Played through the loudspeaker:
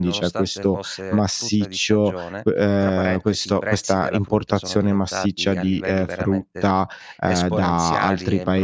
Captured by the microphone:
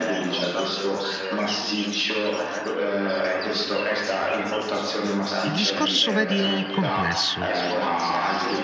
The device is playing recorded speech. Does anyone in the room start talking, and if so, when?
5 s

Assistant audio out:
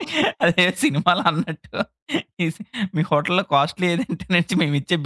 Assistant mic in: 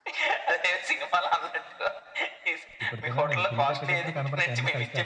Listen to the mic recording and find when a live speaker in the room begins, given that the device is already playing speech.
3 s

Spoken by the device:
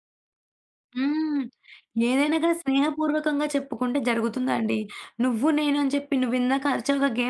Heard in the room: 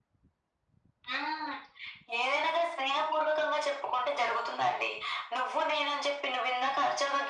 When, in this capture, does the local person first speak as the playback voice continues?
none

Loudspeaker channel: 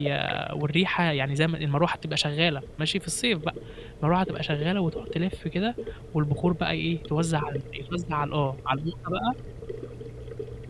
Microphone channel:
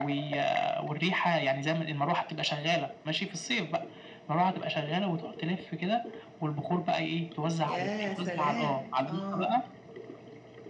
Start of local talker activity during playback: 8 s

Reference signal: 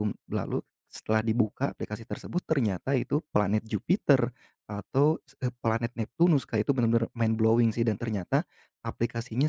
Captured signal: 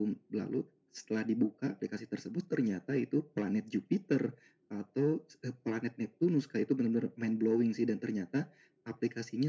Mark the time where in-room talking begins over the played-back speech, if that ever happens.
none

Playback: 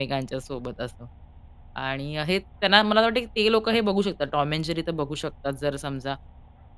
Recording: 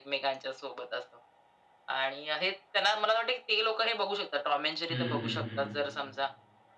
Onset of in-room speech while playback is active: 5 s

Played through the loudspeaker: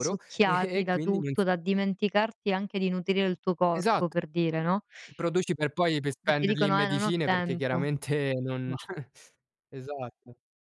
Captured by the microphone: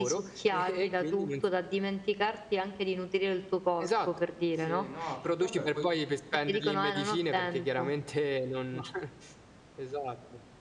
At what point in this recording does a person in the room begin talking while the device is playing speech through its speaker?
4 s

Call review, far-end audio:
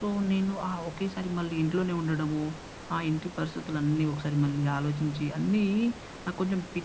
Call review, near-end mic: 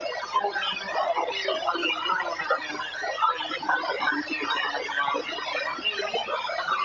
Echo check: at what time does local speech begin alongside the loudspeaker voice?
none

